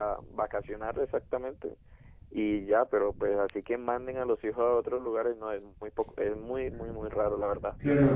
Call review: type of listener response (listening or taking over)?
taking over